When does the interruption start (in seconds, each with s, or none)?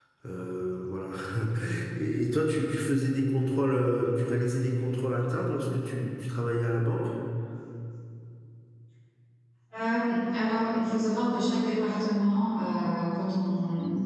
none